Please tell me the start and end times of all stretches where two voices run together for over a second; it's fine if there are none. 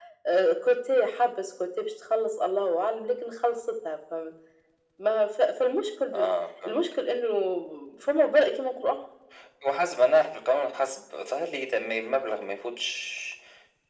none

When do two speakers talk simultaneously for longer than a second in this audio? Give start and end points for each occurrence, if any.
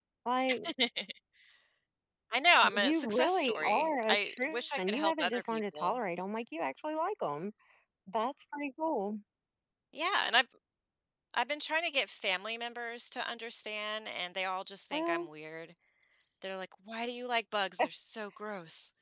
2.6-5.9

